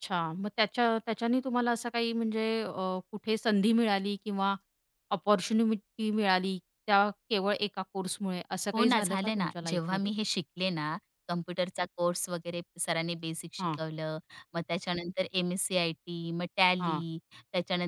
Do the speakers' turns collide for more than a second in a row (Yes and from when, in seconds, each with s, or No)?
Yes, from 8.7 s